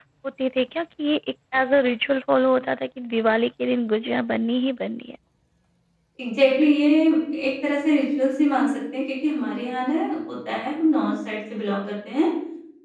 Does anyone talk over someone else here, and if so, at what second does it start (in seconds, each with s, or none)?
none